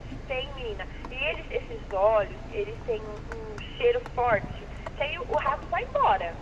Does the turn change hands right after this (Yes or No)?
No